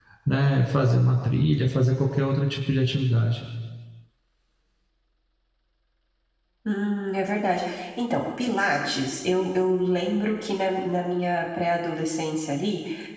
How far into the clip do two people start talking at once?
none

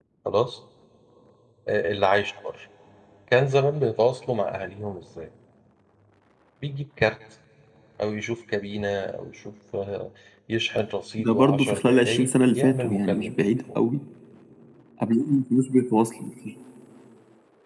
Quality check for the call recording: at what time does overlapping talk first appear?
11.2 s

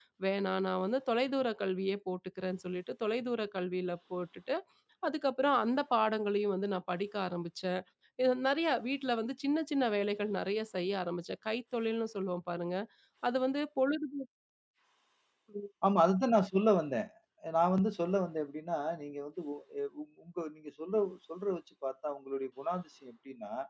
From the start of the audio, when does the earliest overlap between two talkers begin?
none

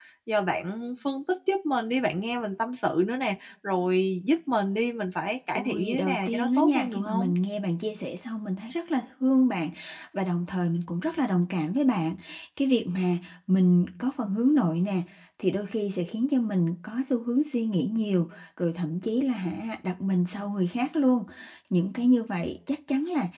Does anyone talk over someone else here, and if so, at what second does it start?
5.5 s

